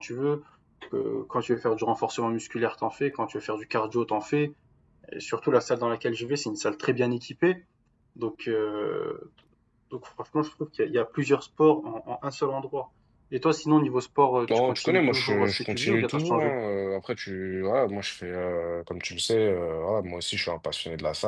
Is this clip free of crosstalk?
No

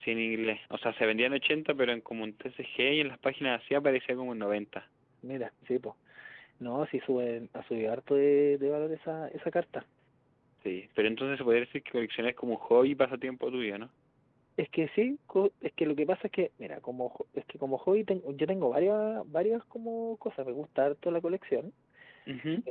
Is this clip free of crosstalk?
Yes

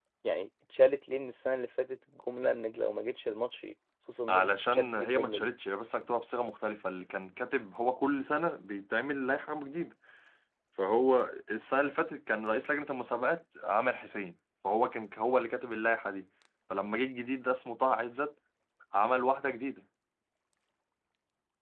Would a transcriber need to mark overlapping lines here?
Yes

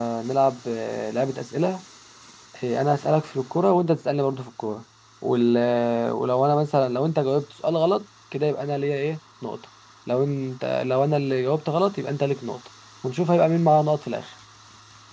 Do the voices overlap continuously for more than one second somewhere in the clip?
No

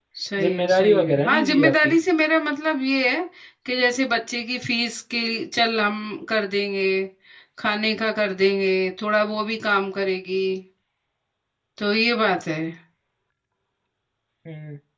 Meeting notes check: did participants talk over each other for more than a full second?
Yes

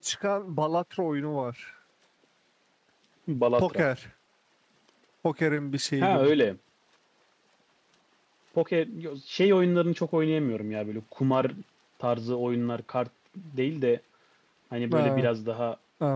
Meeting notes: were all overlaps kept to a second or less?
Yes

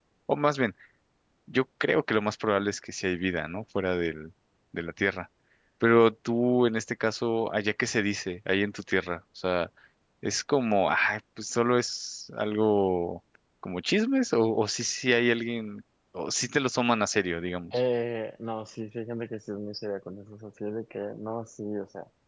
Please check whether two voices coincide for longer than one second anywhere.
No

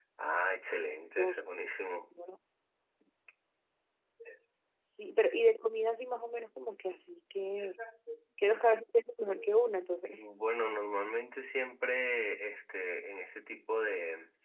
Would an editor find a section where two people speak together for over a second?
No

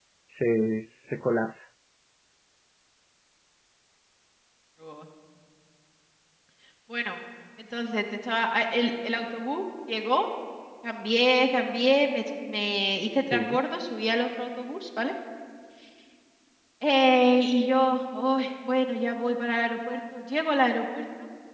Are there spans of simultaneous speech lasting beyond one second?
No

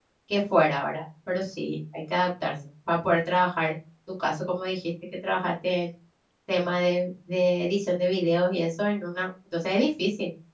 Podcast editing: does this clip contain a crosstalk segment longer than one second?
No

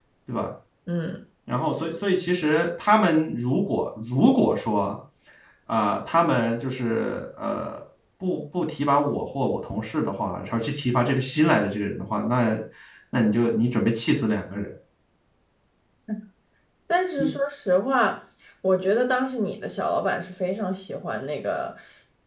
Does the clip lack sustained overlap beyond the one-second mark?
Yes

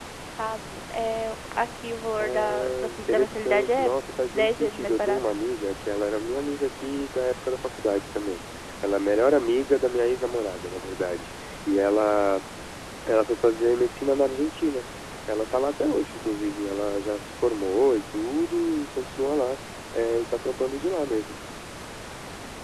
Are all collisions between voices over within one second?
No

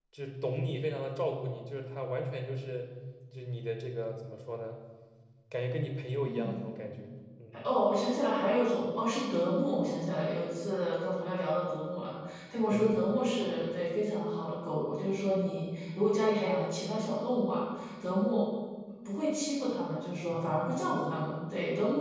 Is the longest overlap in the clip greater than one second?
No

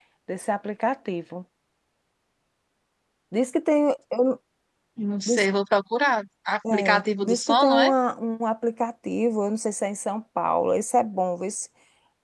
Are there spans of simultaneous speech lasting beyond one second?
Yes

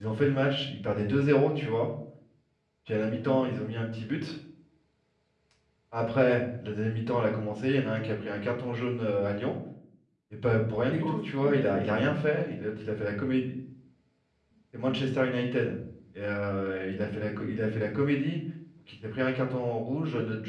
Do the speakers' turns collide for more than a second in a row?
Yes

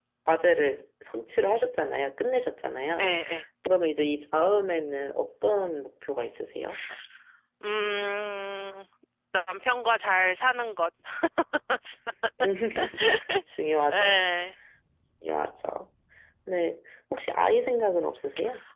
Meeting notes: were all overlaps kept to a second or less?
Yes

